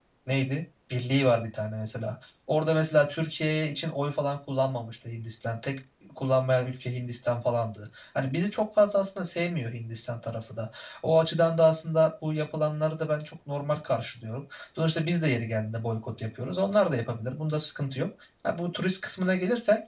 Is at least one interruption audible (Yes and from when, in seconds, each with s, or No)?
No